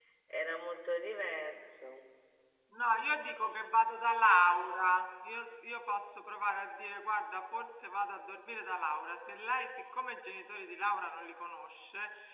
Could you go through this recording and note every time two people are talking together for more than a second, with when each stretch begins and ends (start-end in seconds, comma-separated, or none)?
none